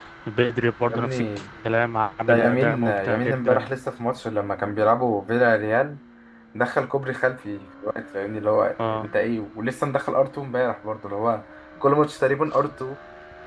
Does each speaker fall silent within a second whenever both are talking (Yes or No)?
No